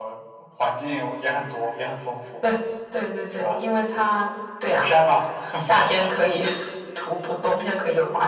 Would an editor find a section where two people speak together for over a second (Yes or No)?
No